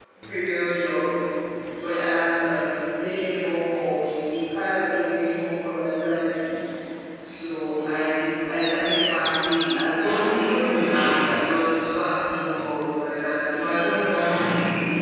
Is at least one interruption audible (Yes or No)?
No